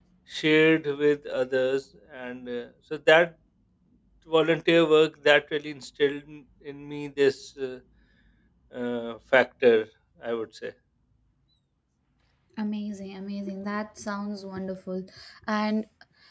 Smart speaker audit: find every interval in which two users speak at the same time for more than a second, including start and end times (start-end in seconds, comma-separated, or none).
none